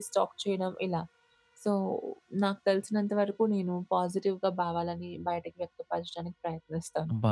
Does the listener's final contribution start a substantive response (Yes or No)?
Yes